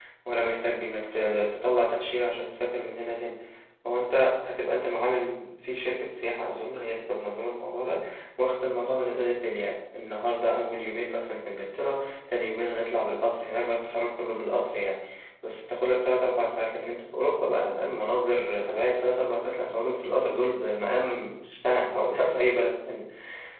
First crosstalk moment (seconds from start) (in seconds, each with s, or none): none